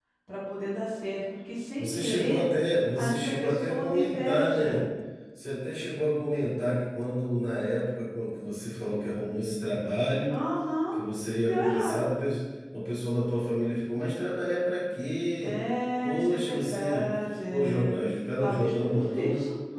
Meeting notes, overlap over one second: present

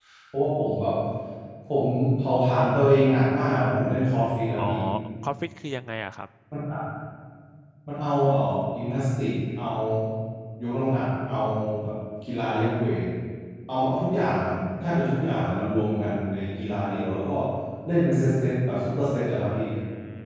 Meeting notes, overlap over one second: none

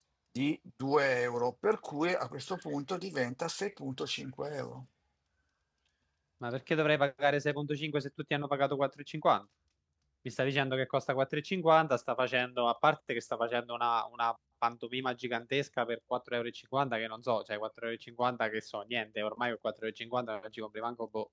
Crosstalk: none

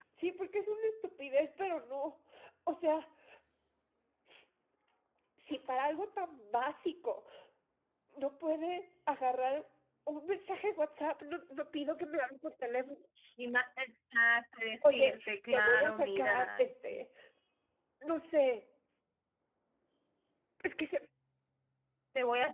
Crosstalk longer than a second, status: present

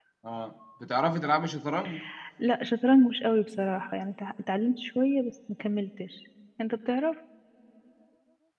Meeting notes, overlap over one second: none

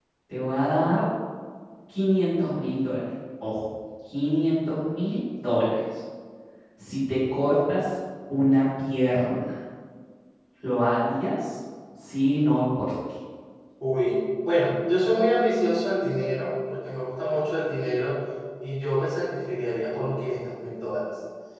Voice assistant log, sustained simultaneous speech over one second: none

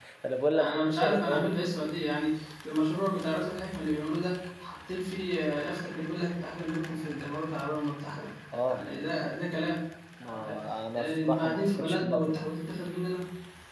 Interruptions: present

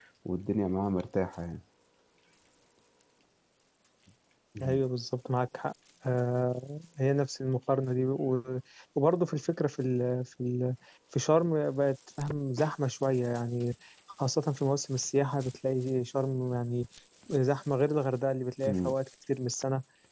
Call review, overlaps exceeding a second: none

